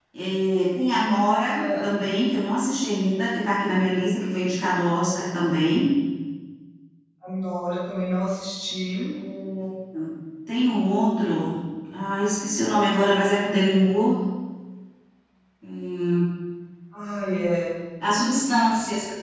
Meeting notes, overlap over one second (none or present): none